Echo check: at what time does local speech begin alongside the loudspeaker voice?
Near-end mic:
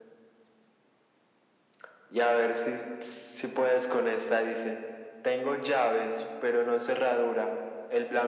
none

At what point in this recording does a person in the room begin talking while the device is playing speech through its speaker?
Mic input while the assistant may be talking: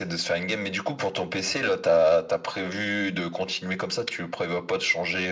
none

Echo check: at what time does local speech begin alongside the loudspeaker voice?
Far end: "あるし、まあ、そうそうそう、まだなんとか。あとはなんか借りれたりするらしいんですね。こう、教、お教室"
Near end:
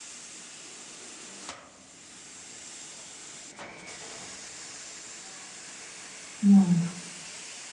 6.4 s

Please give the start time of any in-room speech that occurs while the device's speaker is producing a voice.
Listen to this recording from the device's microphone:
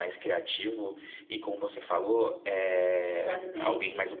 3.0 s

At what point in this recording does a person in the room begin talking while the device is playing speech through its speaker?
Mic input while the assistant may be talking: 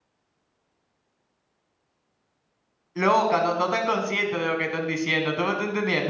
2.9 s

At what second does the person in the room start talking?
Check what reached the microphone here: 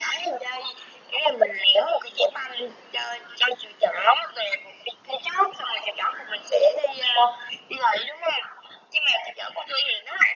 none

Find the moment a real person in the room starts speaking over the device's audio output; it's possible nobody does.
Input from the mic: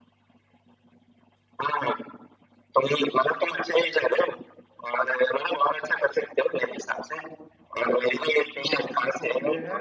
8.7 s

